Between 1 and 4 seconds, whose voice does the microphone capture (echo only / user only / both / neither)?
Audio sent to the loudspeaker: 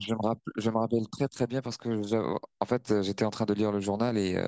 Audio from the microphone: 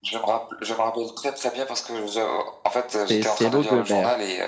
both